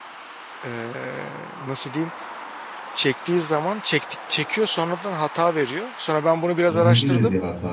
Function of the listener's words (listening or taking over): taking over